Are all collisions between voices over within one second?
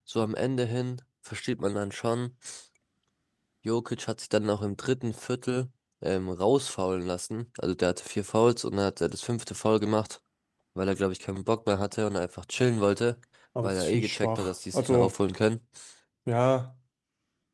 No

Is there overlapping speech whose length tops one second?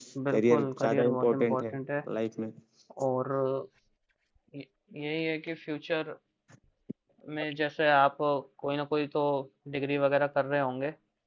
Yes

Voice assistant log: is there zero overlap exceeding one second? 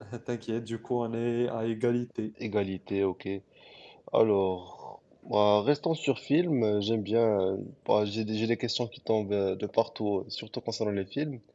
Yes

